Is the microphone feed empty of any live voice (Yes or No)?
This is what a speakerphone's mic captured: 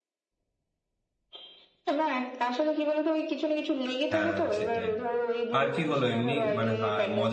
No